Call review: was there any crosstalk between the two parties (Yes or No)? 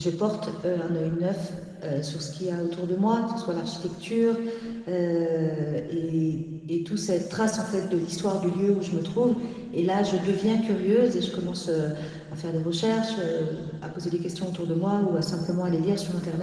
No